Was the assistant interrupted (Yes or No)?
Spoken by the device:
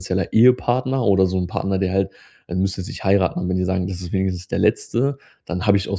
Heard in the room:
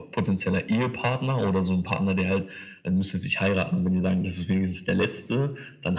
No